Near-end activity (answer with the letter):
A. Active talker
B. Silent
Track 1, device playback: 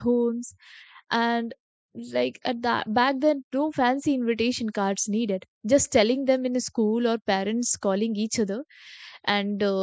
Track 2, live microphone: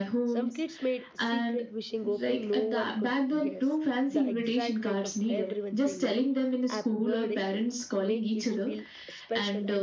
A